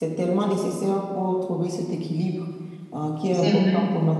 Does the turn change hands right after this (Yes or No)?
No